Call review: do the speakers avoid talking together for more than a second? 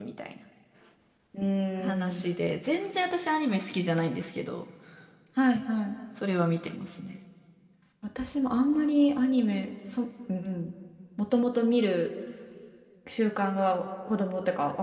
Yes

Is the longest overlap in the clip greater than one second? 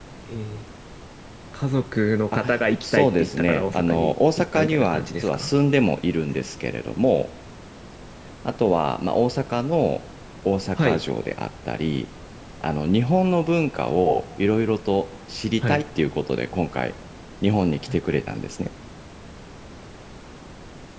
Yes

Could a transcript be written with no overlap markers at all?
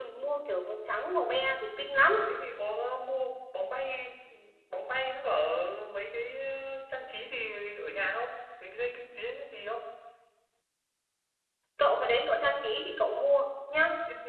Yes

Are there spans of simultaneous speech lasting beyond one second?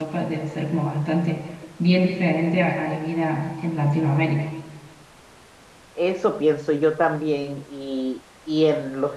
No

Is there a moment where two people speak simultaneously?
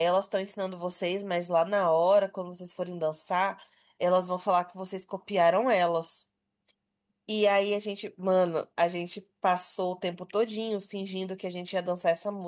No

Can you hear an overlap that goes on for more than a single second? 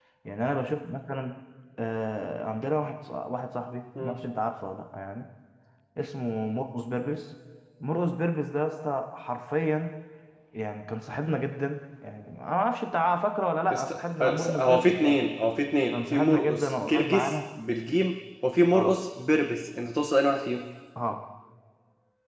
Yes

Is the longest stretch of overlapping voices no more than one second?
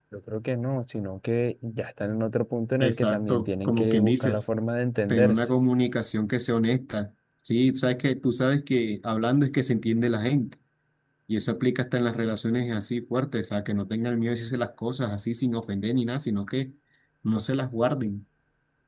No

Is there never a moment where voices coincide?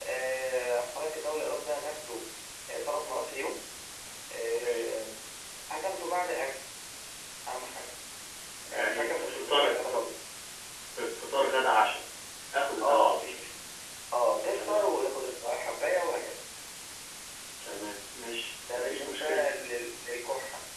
No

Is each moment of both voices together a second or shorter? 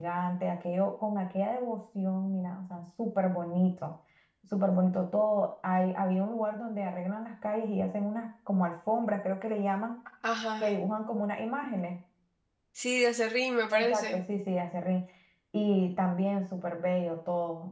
Yes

